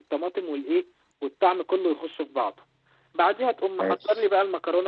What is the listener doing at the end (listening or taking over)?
listening